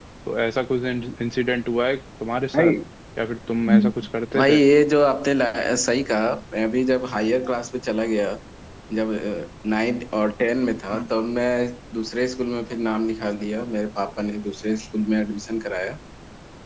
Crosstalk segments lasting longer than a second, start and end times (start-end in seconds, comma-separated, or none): none